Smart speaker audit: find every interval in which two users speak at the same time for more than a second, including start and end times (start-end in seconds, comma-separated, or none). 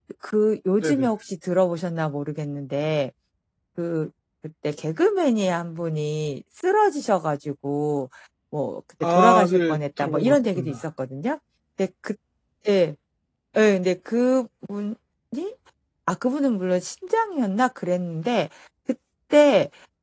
9.0-10.8